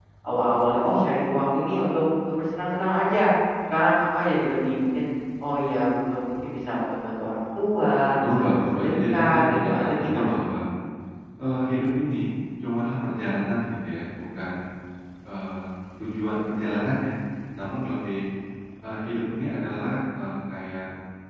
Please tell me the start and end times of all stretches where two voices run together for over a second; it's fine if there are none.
8.2-10.3

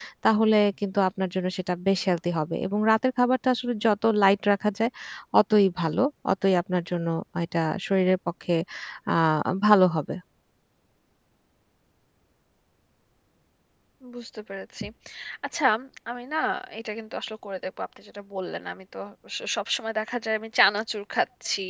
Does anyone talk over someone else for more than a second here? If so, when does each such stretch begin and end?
none

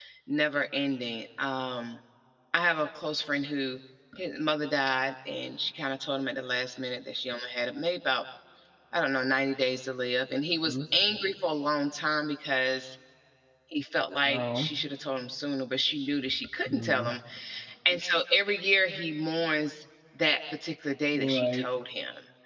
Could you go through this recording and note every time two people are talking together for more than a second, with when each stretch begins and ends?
none

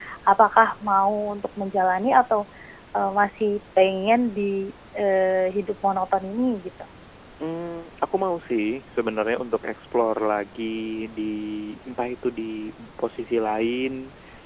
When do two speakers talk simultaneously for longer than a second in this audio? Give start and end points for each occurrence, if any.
none

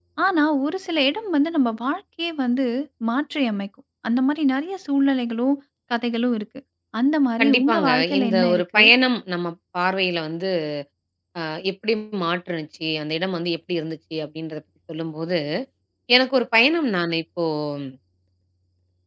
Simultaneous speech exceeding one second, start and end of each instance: 7.4-8.8

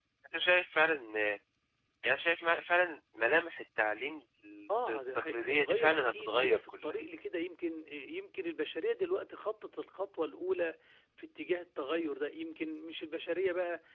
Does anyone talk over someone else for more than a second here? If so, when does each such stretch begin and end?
4.9-6.9

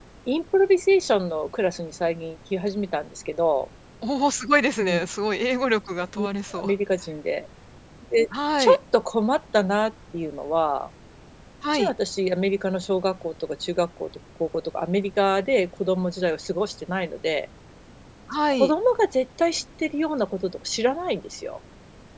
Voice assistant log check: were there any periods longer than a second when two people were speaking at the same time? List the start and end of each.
none

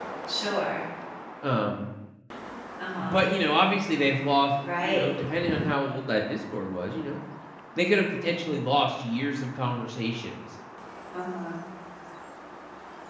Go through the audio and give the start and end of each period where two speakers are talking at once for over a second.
none

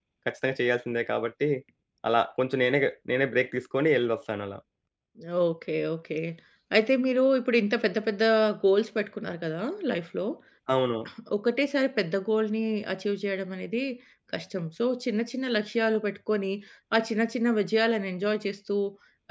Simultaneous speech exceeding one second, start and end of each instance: none

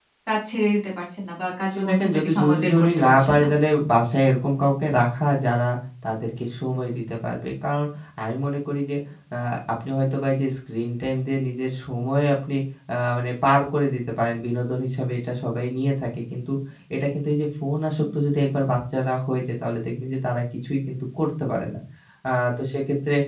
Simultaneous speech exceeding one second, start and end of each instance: 1.7-3.5

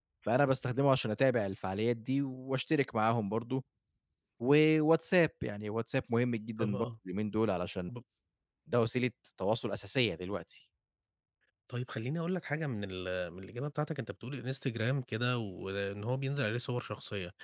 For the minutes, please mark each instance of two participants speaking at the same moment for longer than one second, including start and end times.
none

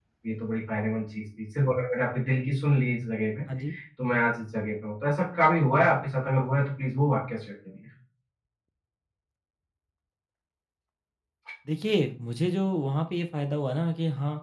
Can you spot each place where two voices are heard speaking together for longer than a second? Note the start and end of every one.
none

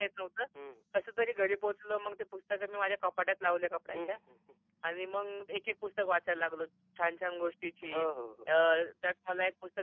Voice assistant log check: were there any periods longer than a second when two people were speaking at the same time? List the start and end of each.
none

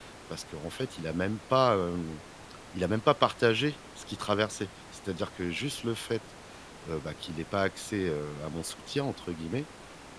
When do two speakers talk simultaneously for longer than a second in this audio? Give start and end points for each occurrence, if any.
none

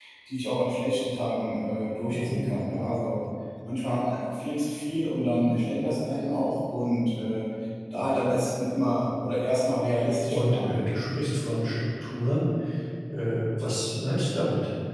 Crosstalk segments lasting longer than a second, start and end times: none

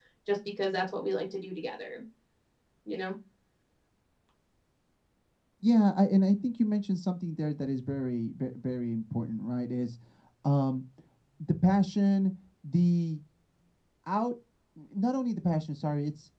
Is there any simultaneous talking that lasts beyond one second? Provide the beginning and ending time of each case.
none

